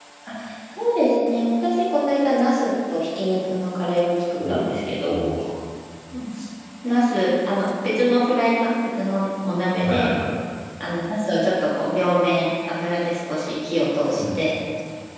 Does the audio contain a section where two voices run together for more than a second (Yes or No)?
No